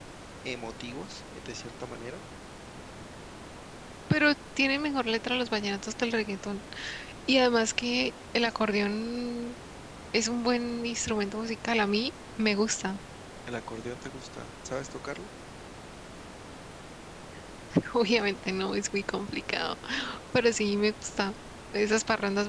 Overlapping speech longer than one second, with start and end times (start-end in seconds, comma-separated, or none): none